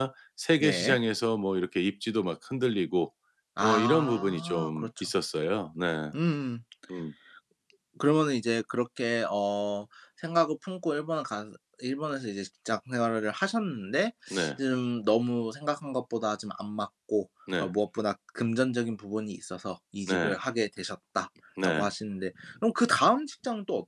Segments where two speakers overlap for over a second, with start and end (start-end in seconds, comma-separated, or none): 3.6-5.1